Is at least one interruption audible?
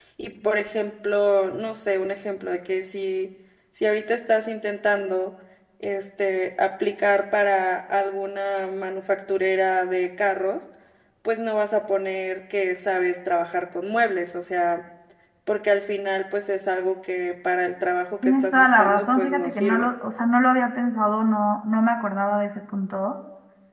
Yes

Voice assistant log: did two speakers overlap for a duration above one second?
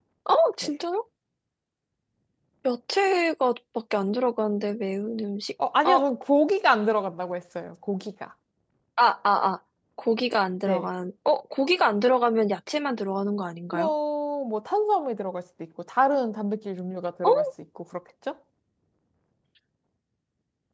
No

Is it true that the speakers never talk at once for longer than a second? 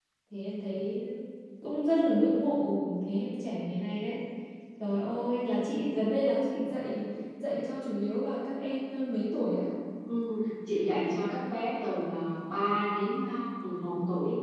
Yes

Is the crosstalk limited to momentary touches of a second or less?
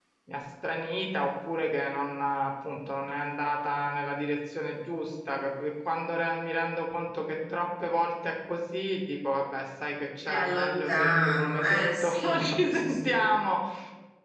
No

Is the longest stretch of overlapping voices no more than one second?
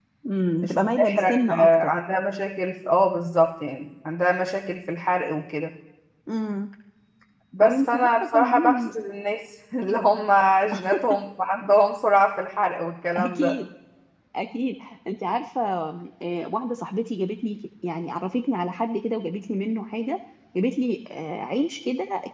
No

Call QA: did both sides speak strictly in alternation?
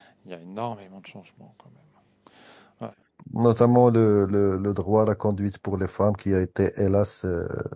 Yes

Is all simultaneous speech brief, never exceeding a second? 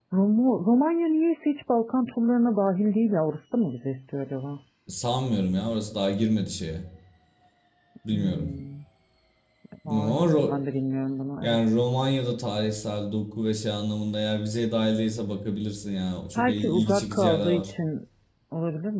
No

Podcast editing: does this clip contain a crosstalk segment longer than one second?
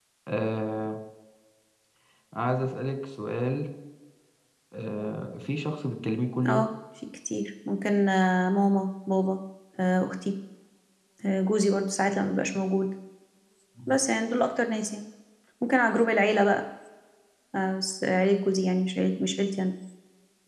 No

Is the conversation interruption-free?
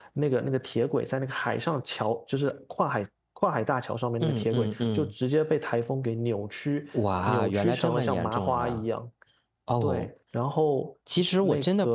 No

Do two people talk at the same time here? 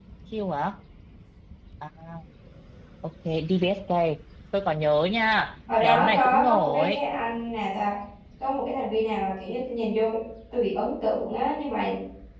Yes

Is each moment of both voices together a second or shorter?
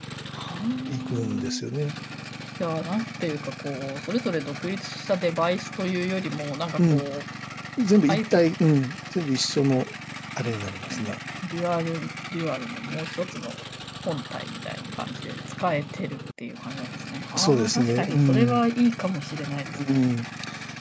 No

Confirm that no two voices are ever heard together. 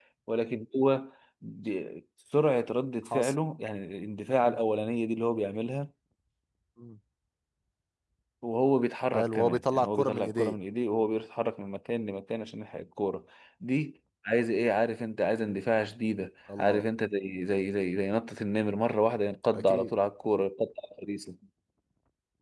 No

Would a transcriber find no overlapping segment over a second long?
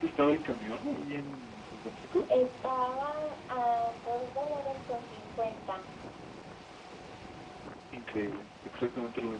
Yes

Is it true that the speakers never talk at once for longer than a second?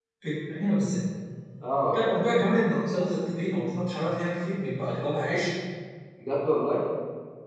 Yes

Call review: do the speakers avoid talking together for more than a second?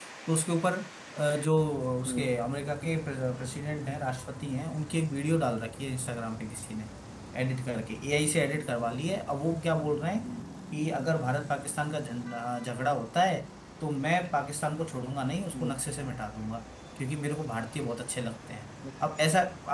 Yes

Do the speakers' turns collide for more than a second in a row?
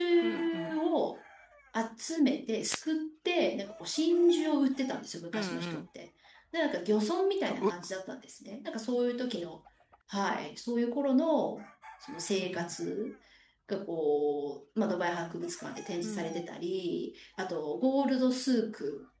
No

